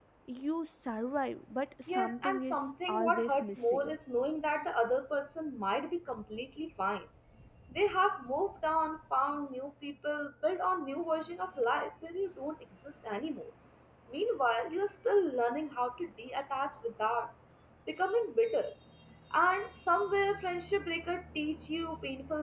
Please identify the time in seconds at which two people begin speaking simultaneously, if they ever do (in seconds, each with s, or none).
1.9 s